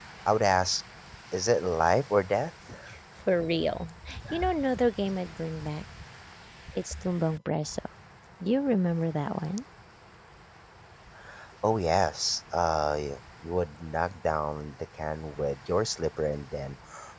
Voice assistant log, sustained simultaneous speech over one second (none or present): none